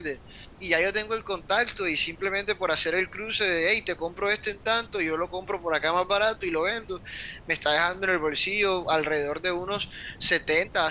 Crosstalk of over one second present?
No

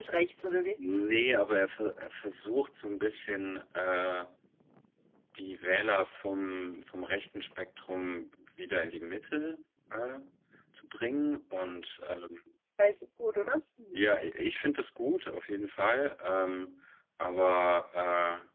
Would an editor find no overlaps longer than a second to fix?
Yes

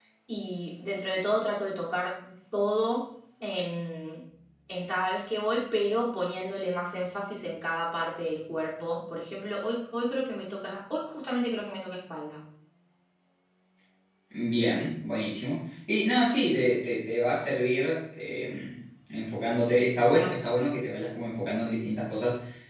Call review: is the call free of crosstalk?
Yes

